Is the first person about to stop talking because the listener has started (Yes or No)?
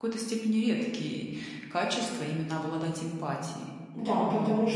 Yes